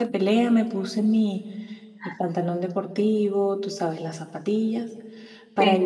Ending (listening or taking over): listening